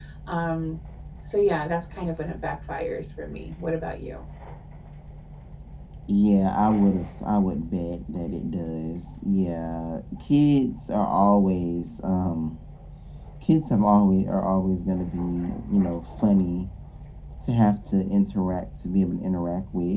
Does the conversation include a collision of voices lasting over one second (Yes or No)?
No